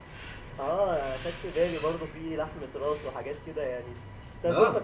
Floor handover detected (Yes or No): No